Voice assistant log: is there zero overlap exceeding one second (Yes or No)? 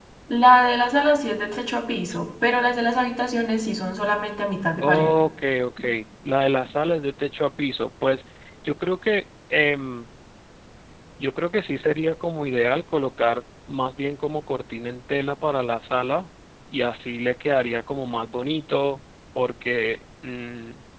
Yes